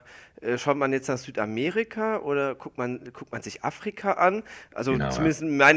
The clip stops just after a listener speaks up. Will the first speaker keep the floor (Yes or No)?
Yes